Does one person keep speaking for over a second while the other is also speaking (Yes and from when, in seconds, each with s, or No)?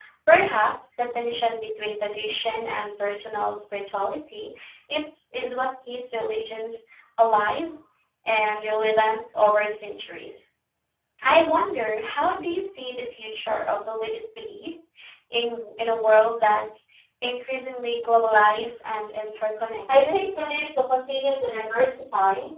No